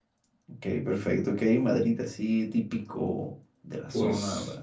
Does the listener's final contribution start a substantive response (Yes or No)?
Yes